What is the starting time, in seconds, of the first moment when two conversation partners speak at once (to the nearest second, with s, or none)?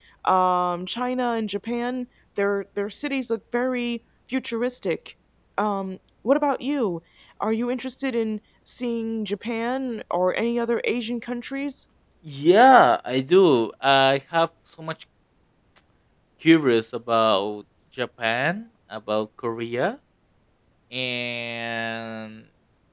none